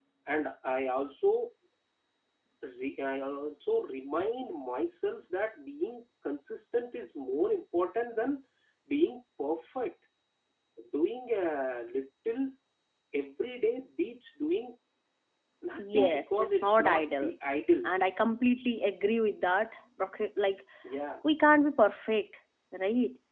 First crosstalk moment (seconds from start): 15.8 s

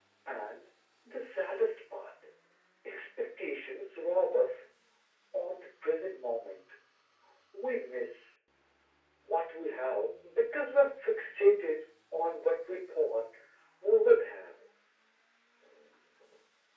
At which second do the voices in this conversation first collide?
none

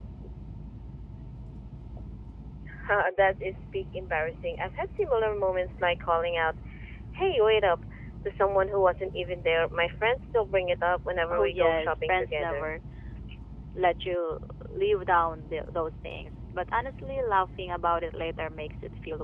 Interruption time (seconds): 11.3 s

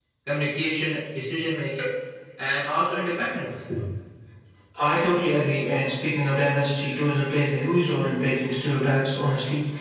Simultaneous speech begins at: none

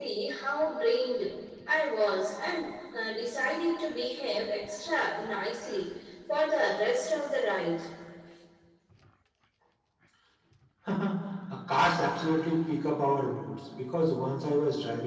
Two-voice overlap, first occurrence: none

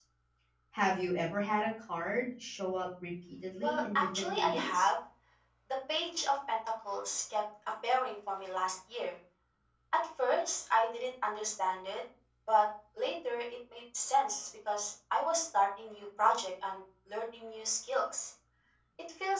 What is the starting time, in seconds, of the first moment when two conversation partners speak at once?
3.6 s

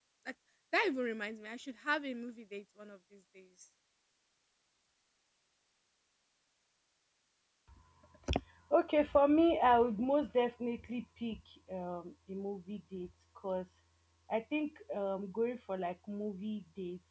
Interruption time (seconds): none

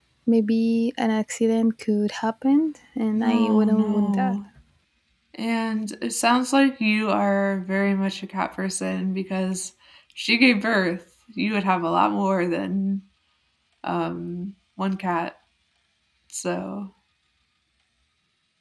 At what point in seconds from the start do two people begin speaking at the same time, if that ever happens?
3.2 s

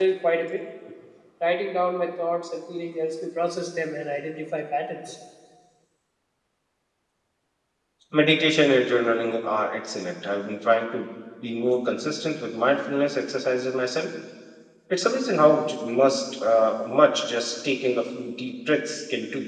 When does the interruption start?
none

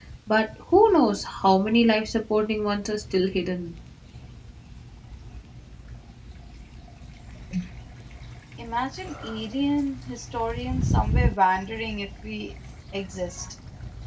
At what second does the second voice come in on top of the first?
none

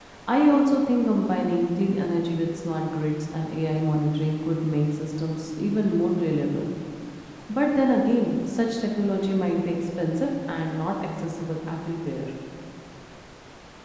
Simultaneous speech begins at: none

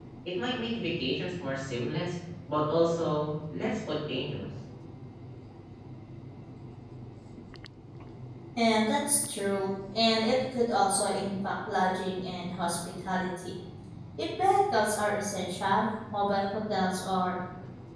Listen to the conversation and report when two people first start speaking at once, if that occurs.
none

